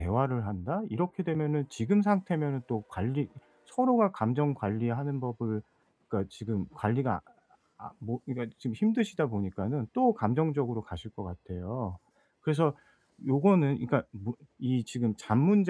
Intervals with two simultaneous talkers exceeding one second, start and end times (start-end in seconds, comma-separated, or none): none